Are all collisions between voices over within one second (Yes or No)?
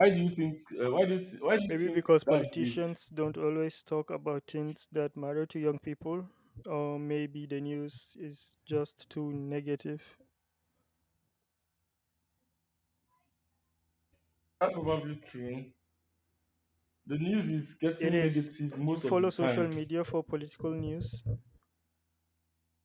No